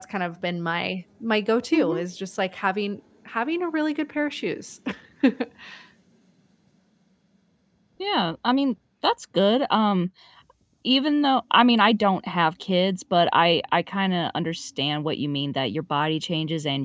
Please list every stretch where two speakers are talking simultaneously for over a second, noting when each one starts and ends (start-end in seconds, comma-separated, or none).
none